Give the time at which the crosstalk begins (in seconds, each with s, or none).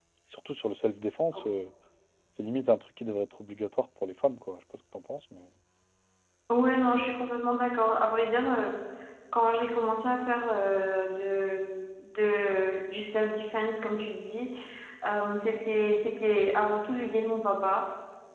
none